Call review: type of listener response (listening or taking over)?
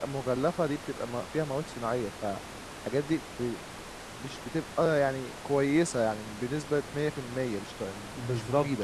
taking over